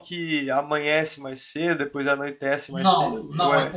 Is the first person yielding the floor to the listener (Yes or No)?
Yes